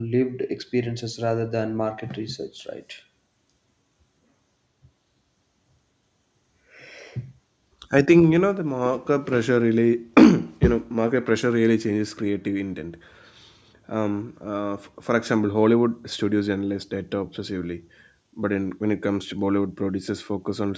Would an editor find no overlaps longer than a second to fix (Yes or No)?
Yes